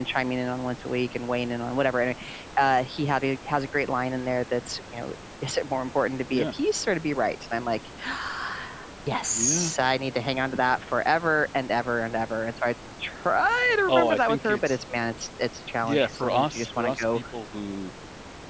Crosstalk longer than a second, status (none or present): present